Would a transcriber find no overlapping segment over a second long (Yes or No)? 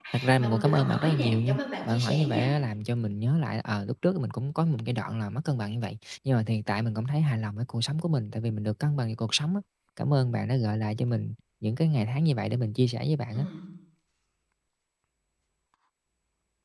No